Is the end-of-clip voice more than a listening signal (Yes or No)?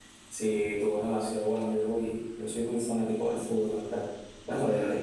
No